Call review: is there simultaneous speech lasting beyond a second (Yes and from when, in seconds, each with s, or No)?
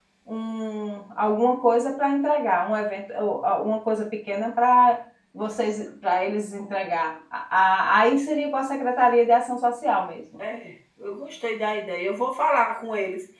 No